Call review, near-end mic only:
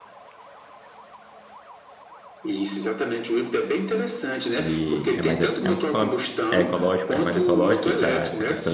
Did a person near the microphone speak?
Yes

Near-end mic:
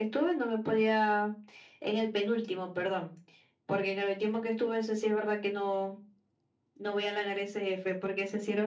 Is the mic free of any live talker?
Yes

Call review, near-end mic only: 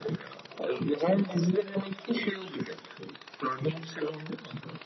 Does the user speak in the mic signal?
No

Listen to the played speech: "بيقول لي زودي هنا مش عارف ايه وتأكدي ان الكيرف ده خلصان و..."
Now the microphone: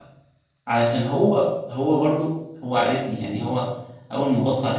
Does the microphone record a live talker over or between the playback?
Yes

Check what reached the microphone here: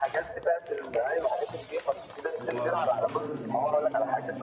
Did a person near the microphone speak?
Yes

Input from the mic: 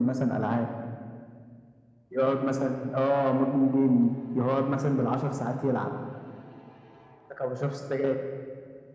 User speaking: No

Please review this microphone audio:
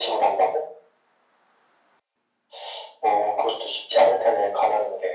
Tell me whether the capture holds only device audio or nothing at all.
Yes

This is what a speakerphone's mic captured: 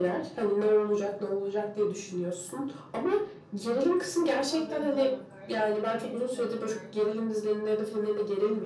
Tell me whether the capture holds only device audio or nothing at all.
No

